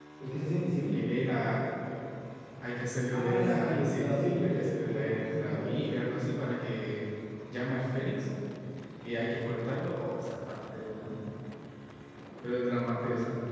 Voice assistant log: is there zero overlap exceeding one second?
No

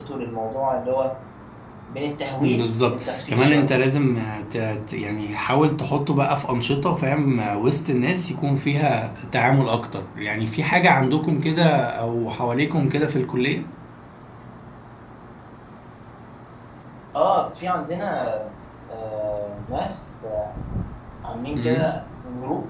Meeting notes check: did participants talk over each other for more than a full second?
Yes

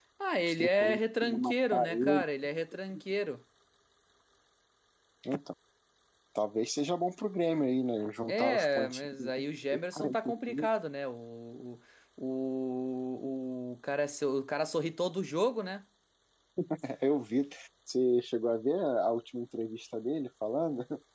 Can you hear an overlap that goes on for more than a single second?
Yes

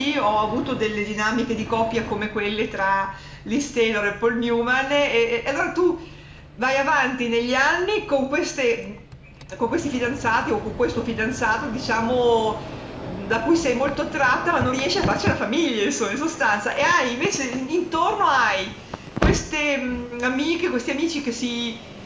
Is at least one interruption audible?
No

